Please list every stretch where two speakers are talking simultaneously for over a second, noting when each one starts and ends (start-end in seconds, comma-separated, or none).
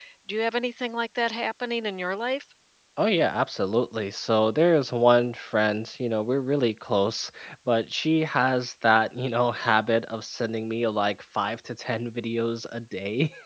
none